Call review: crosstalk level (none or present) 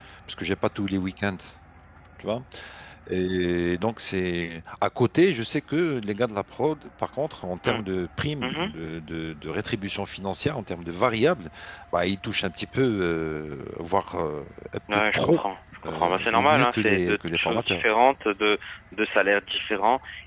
present